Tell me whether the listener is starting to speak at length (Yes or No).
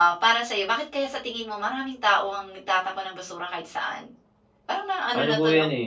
Yes